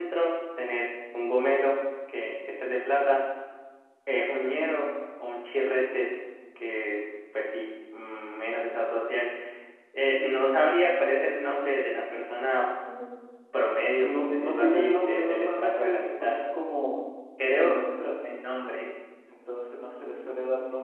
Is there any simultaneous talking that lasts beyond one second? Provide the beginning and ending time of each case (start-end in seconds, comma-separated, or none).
14.0-16.4